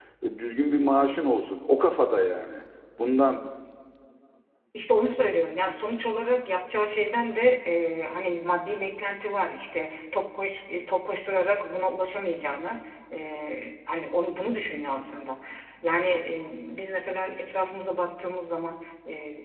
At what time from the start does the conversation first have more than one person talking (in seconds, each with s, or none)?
none